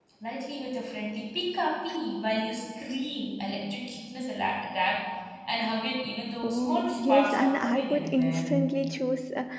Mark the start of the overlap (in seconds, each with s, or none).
6.4 s